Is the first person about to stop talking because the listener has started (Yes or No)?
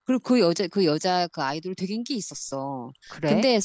No